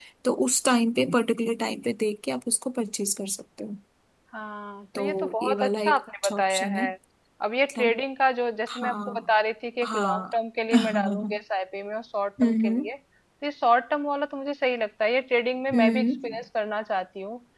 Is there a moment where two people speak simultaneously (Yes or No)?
Yes